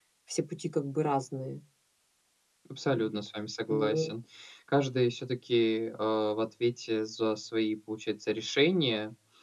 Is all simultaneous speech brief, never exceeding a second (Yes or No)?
Yes